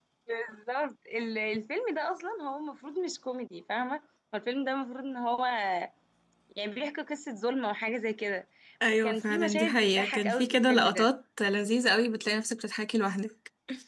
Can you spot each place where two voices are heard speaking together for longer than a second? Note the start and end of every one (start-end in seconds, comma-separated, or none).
9.0-11.1